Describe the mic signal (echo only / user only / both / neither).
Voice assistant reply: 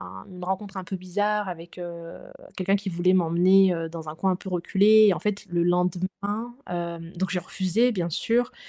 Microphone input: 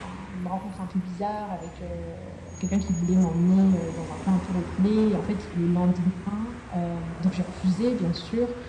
echo only